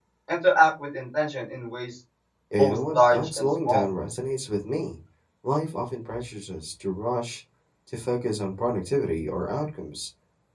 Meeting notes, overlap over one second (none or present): present